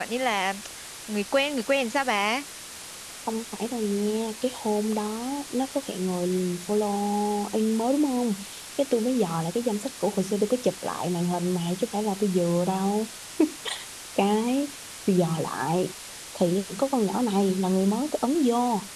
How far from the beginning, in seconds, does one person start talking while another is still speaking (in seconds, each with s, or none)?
none